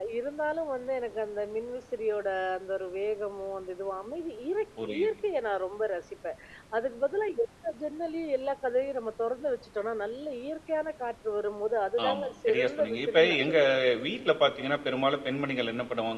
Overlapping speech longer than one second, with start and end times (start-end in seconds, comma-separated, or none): 12.1-13.6